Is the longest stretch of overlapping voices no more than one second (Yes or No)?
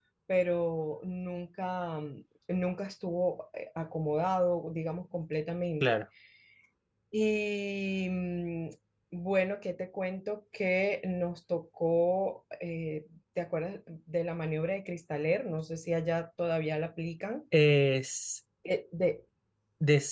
Yes